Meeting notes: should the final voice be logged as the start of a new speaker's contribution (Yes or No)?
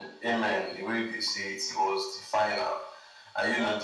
No